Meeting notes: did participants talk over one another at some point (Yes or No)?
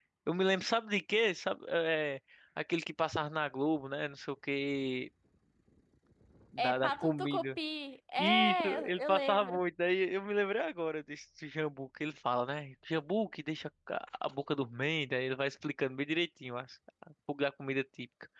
Yes